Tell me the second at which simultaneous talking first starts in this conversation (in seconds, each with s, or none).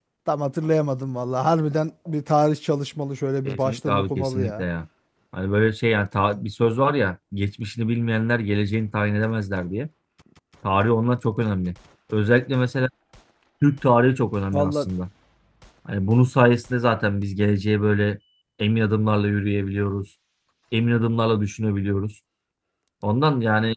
3.5 s